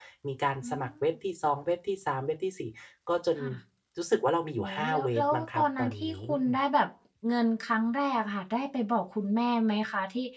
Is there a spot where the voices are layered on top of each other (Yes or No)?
Yes